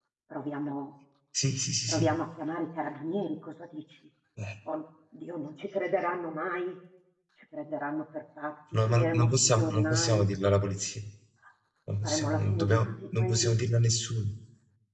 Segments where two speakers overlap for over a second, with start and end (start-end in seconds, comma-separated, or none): 8.9-10.3, 12.0-13.6